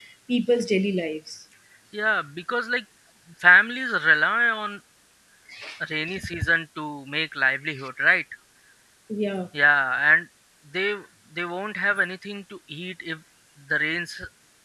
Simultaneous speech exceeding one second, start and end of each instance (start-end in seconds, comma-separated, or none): none